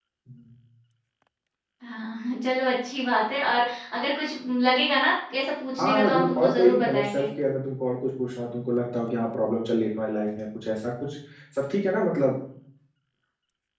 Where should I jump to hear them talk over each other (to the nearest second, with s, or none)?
6 s